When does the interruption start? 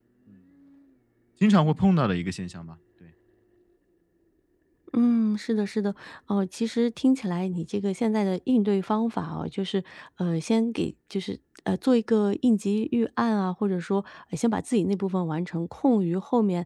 none

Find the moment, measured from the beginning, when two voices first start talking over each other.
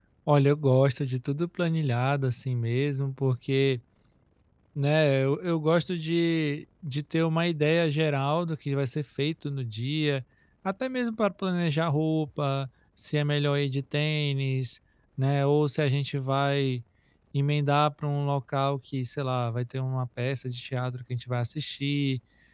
none

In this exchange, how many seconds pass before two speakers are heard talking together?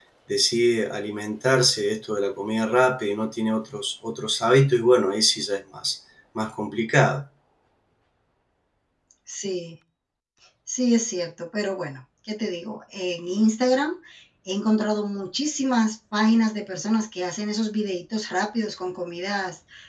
none

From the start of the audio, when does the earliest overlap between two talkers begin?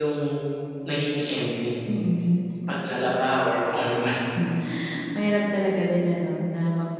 none

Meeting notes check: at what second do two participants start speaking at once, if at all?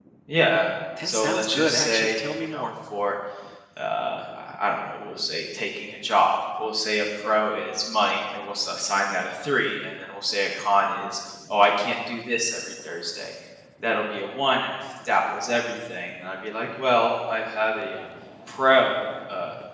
1.0 s

